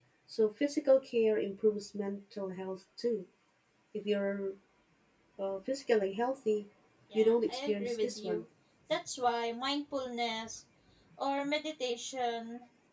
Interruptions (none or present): present